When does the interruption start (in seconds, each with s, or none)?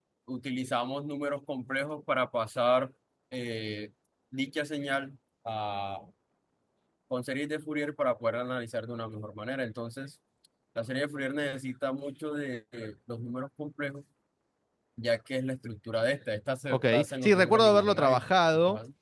16.7 s